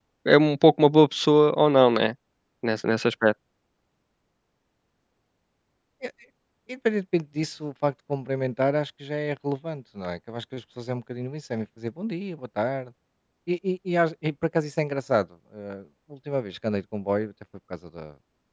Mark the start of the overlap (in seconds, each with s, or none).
none